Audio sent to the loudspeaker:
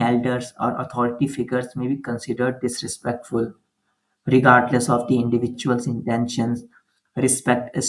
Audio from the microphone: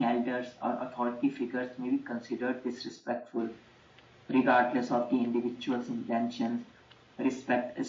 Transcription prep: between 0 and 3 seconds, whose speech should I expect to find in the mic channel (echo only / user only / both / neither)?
echo only